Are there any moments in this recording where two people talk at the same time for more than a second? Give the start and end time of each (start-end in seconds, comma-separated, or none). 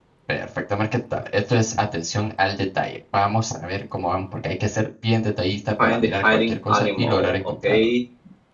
5.8-7.9